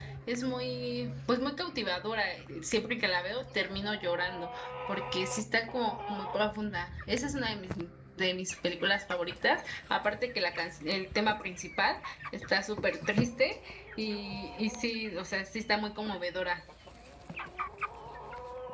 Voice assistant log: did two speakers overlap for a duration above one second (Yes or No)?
No